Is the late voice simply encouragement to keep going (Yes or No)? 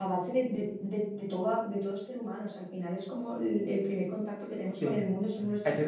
No